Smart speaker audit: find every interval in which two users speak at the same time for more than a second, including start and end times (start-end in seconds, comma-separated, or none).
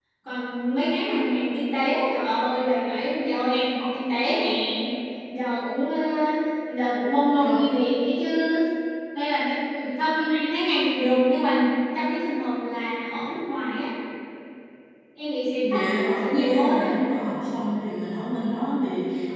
15.6-16.9